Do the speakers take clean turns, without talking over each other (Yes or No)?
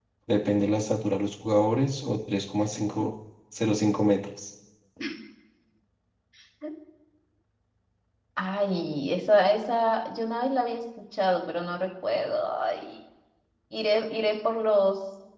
Yes